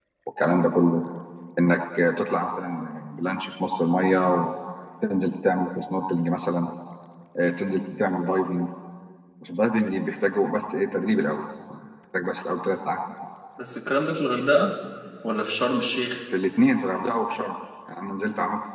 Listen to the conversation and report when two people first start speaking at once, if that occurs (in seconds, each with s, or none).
none